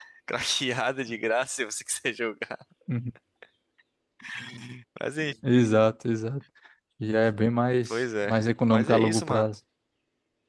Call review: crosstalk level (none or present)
present